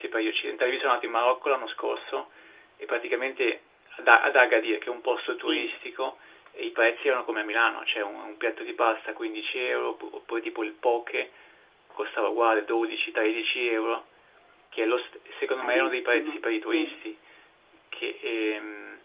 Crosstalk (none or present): present